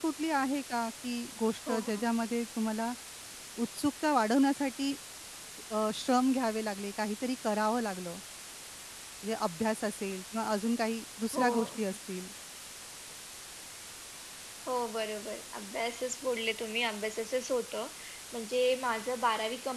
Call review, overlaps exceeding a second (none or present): none